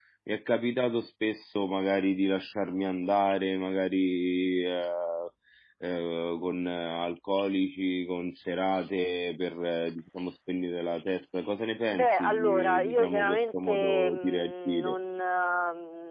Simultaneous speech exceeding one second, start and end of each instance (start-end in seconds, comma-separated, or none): 11.9-15.0